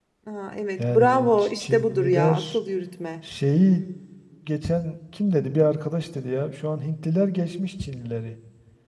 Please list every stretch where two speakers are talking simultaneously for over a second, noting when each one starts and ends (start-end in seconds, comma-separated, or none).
0.8-2.6